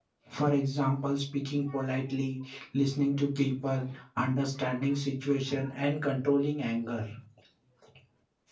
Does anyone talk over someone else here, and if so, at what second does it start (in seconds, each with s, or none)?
none